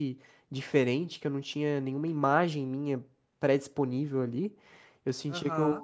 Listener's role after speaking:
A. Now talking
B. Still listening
B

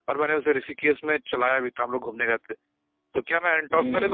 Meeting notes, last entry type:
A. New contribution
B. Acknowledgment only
A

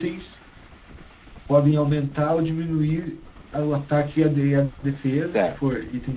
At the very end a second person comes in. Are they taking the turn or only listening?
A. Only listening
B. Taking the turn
B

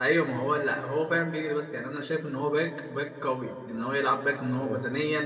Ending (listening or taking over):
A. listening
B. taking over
A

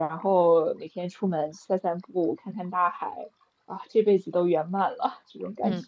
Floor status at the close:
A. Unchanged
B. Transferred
B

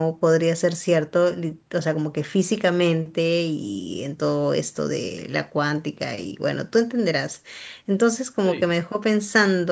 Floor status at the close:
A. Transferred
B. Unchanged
B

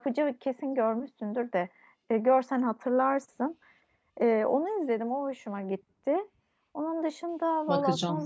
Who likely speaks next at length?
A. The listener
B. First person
B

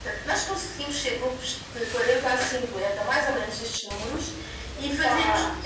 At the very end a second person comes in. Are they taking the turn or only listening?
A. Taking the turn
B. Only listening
B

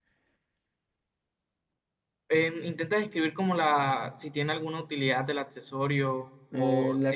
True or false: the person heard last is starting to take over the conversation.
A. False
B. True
B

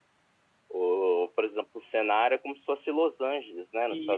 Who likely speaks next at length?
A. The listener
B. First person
A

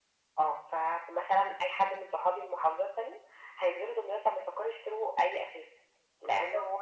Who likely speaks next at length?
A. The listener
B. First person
B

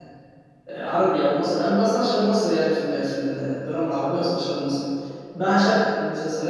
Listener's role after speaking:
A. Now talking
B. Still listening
B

